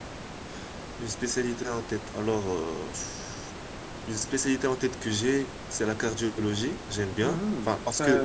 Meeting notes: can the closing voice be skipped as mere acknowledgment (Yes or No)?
No